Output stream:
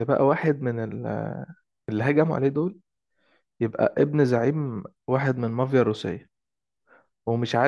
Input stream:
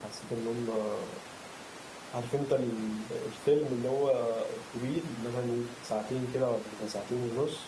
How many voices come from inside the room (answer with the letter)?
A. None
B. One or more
B